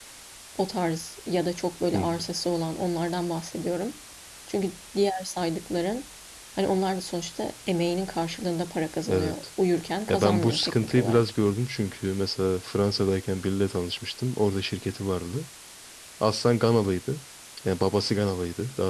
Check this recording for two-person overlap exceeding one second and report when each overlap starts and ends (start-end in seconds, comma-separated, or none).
10.1-11.3